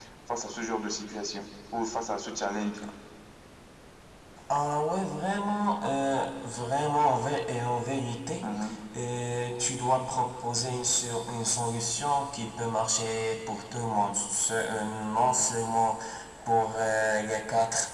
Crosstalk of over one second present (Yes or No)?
No